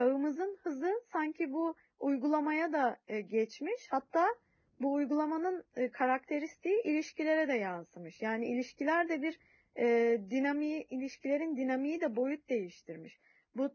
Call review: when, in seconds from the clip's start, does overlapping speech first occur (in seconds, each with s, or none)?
none